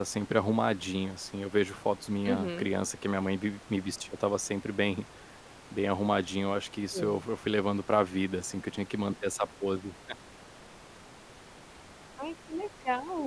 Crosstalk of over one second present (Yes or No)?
No